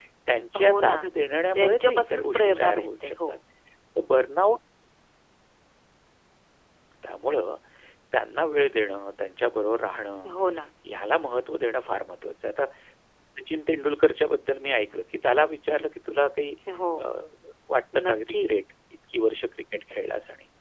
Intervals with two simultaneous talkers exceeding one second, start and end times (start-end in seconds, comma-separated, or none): 1.6-3.4